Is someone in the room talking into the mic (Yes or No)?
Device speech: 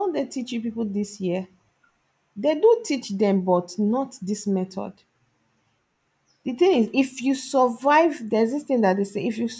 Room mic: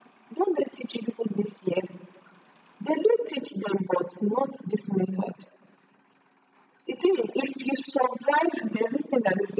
No